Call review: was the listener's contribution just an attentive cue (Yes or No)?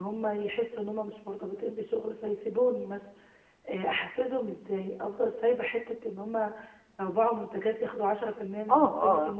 No